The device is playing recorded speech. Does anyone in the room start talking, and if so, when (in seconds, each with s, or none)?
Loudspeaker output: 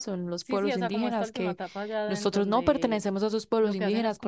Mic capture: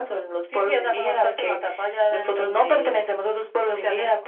none